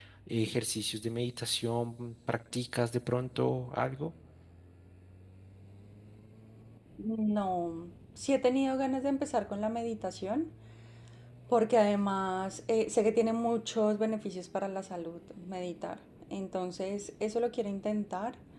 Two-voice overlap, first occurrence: none

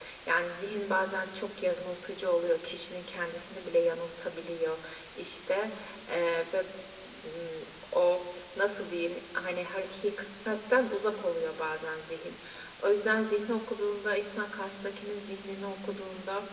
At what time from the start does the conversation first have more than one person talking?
none

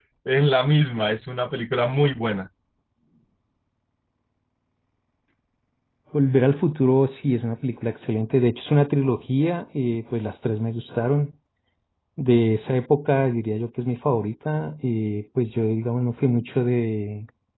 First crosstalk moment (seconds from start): none

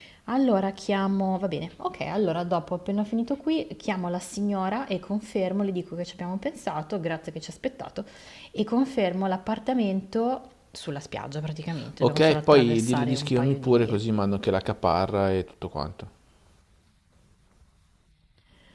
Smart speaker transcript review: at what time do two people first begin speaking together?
12.0 s

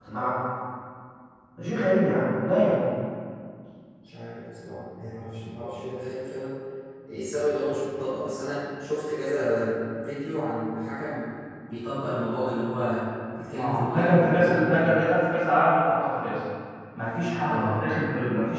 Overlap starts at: 13.5 s

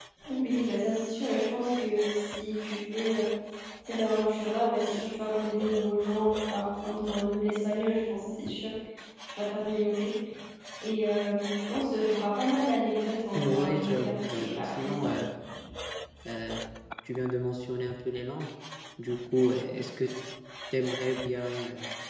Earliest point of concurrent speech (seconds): 13.3 s

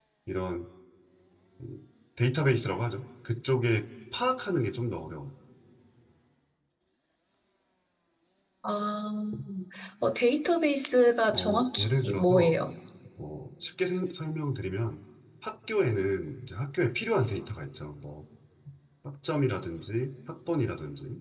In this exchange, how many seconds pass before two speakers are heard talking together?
11.3 s

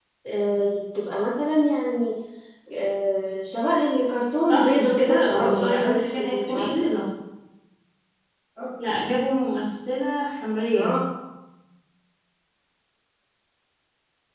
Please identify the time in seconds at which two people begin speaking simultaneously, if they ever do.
4.4 s

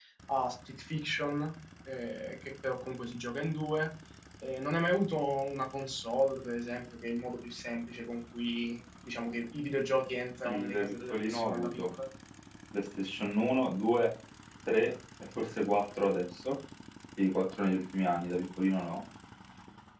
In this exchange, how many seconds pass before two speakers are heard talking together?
10.4 s

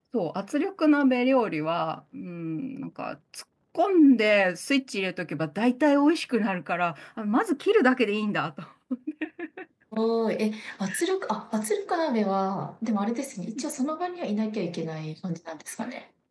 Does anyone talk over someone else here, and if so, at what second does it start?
none

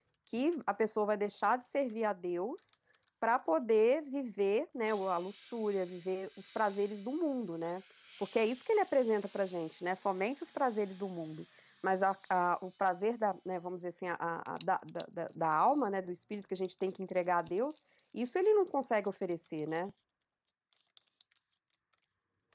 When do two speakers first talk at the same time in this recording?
none

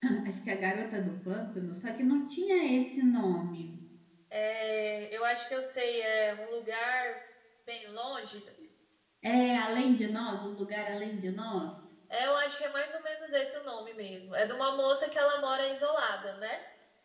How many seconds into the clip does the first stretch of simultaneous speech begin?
none

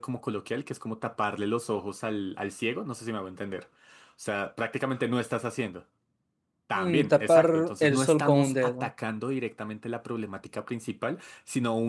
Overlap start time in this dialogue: 6.8 s

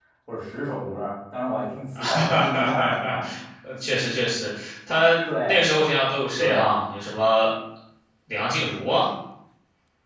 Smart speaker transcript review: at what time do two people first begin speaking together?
1.9 s

